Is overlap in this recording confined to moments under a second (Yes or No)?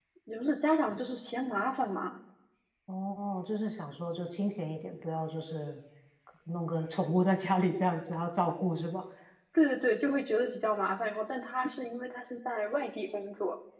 Yes